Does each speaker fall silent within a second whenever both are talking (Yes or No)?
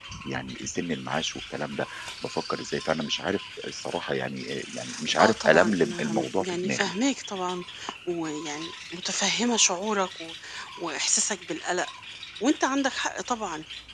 No